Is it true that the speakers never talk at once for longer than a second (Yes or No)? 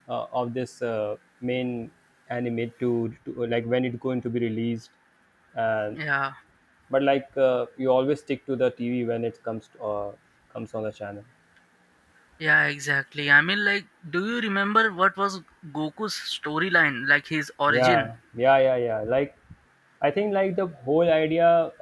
Yes